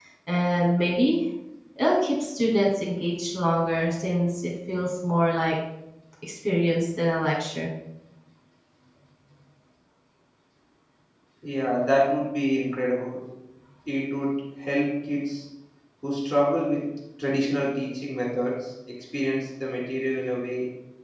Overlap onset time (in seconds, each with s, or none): none